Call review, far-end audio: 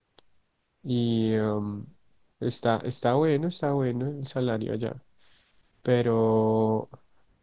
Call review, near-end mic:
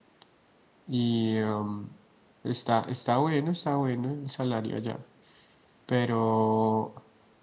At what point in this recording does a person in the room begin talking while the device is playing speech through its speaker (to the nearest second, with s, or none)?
none